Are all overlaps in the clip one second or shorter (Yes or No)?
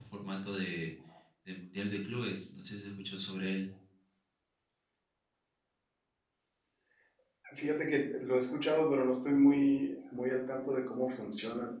Yes